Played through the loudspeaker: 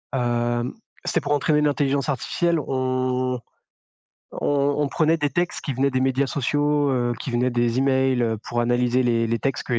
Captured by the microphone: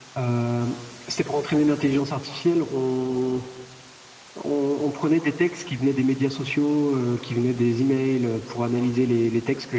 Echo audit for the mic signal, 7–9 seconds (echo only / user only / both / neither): echo only